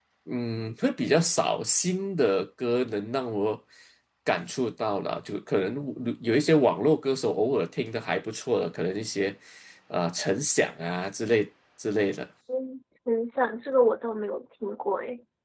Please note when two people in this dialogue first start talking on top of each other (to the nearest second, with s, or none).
none